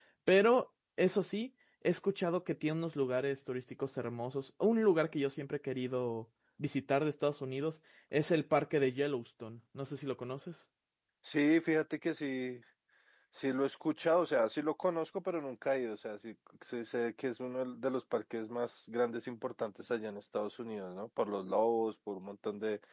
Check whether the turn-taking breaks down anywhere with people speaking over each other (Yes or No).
No